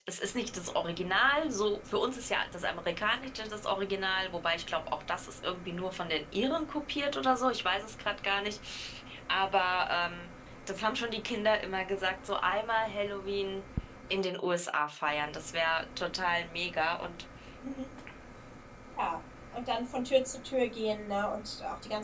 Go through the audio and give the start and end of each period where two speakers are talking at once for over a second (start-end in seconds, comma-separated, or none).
none